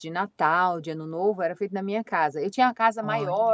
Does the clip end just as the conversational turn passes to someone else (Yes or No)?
No